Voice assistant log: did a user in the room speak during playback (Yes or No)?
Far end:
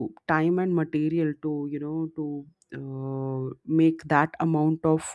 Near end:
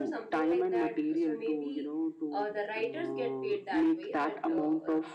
Yes